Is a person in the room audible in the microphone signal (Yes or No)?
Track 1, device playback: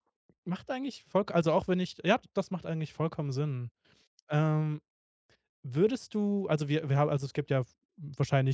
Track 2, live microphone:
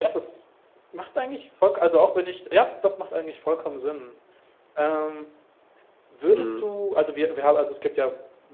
Yes